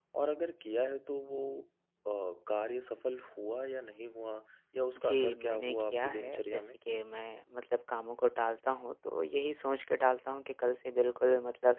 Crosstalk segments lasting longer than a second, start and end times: 5.0-6.6

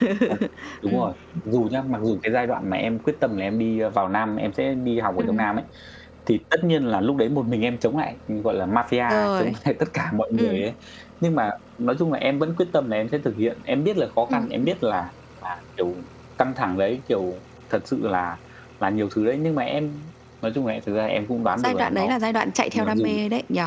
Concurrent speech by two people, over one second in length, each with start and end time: none

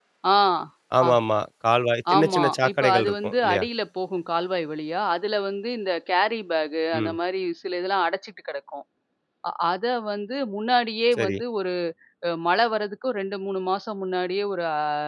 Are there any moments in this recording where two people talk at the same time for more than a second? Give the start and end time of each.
2.1-3.6

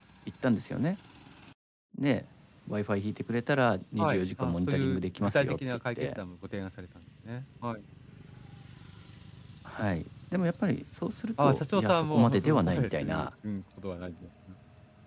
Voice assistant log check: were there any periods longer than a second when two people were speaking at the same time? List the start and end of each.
4.0-6.2, 11.4-13.3

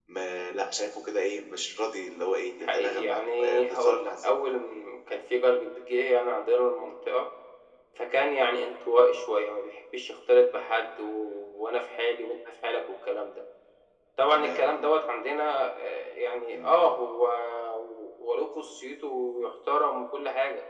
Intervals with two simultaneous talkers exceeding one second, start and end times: 2.6-4.3

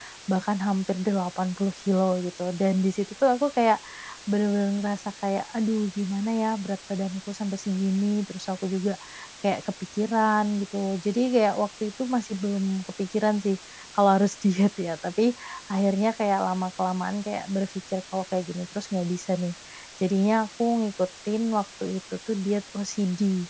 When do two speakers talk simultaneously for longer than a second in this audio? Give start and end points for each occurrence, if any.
none

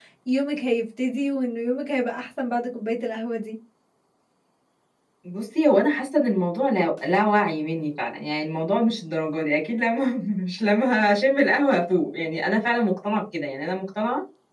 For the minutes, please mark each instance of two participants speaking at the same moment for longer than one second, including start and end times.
none

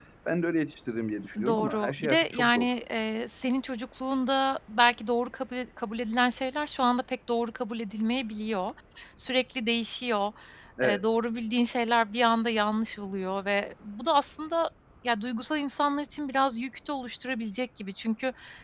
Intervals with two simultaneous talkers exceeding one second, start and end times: 1.5-2.7

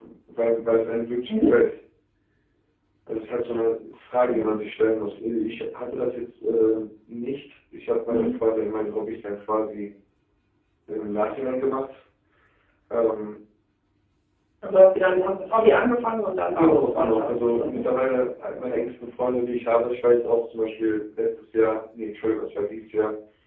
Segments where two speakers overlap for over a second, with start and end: 16.5-17.8

